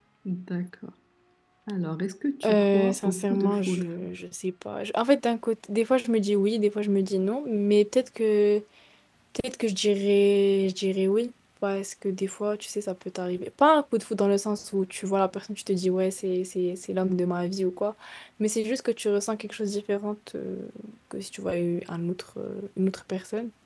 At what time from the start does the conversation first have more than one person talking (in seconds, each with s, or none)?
2.4 s